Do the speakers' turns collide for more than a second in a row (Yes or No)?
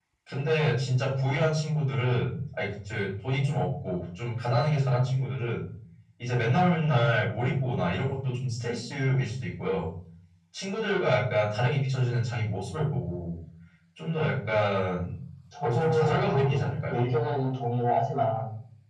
Yes